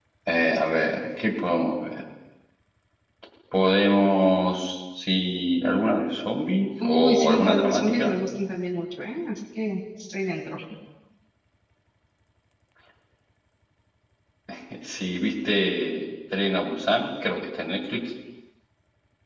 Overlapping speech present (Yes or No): Yes